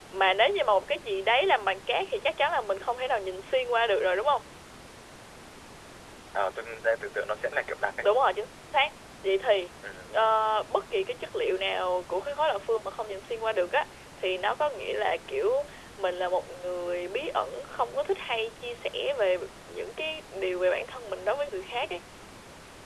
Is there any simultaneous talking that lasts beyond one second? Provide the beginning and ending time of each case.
none

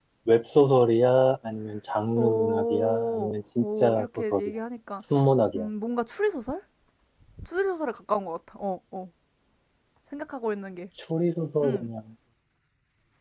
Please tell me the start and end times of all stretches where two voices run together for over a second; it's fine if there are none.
2.2-4.5

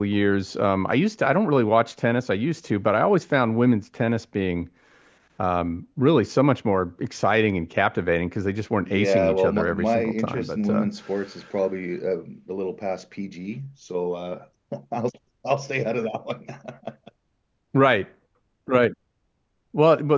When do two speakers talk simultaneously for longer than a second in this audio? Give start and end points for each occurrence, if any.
8.8-10.9

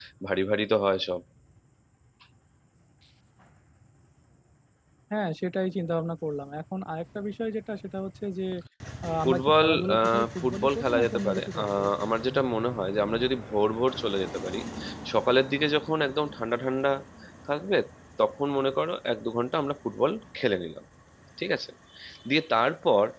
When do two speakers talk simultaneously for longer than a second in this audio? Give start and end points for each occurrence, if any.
9.2-11.9

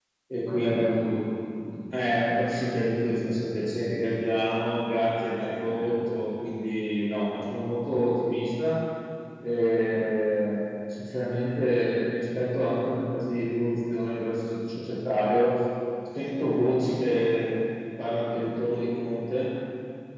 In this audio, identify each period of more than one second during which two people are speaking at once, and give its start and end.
none

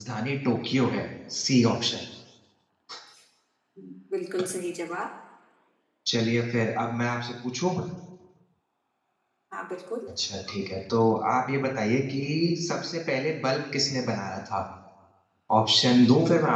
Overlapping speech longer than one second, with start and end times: none

